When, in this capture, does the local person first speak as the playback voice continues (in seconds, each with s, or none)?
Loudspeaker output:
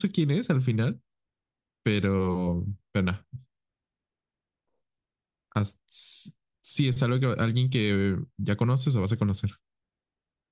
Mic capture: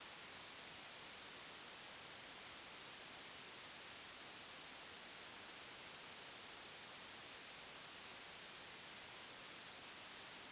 none